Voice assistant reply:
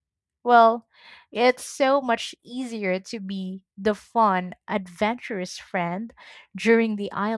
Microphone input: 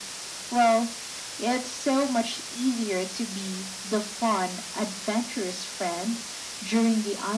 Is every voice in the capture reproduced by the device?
Yes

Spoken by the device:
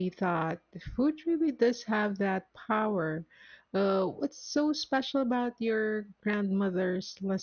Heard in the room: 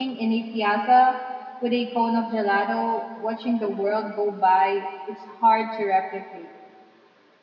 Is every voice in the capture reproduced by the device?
No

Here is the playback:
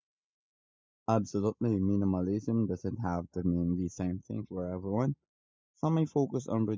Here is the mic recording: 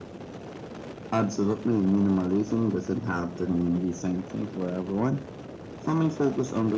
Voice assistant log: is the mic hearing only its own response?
Yes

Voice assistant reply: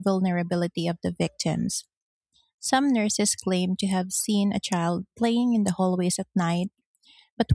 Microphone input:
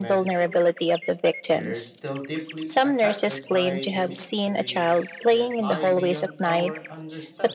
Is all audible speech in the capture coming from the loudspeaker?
No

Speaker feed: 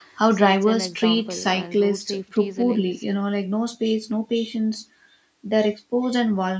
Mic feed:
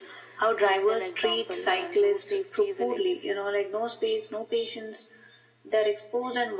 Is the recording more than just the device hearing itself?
No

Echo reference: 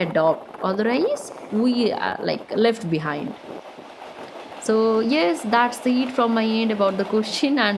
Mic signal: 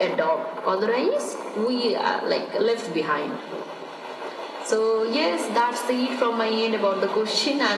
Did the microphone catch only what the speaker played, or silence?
Yes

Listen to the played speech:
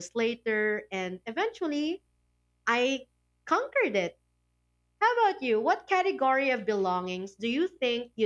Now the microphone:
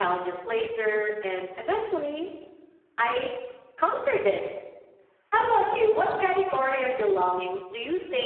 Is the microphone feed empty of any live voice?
Yes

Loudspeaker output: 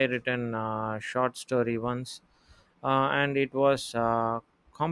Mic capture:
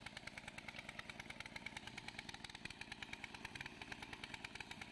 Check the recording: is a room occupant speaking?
No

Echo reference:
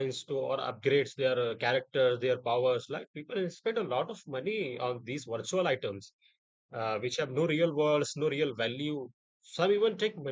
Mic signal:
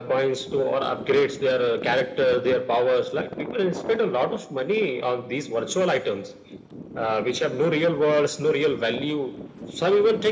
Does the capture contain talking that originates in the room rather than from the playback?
No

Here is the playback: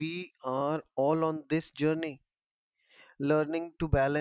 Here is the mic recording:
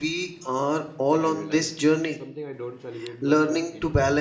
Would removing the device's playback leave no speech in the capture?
No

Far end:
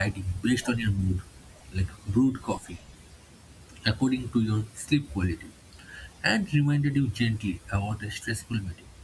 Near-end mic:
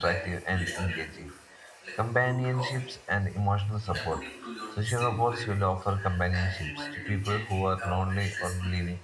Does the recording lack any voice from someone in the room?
No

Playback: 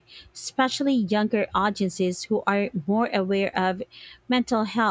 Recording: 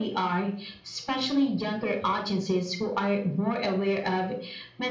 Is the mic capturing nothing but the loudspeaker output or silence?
Yes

